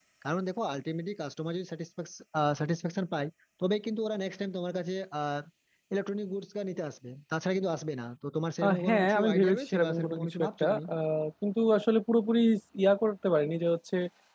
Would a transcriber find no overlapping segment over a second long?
No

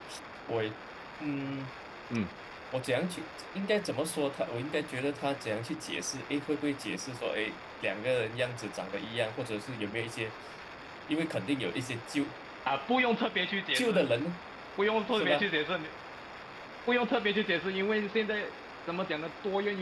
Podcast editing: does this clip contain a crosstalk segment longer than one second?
No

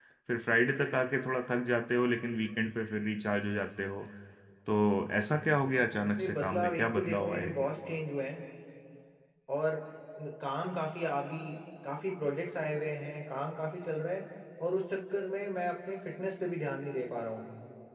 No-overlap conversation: No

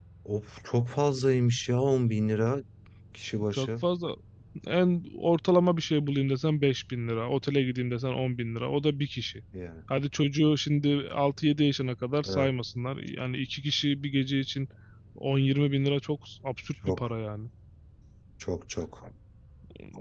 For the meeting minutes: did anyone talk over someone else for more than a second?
No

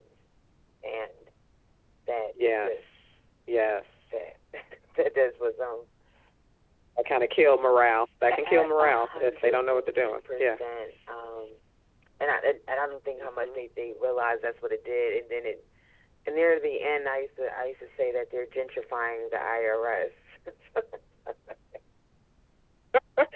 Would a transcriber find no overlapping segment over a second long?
No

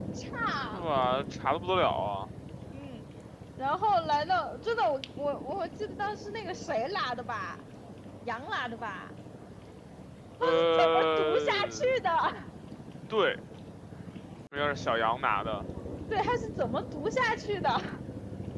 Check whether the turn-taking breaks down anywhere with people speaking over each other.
Yes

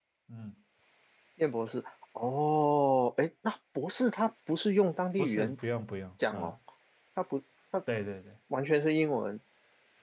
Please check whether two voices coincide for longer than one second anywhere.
No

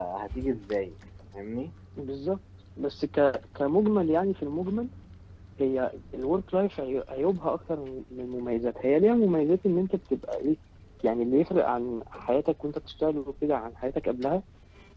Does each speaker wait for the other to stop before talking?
Yes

